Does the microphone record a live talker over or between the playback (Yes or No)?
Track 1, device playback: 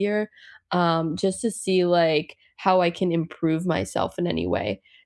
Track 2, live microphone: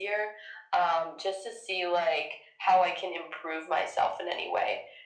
No